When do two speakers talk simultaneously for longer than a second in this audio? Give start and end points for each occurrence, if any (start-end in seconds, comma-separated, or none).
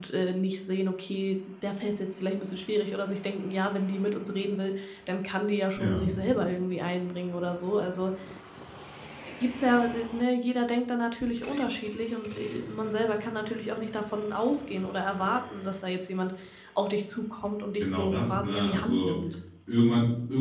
17.8-19.2